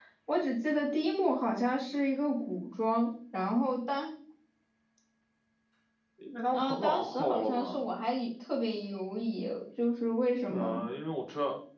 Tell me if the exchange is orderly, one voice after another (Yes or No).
No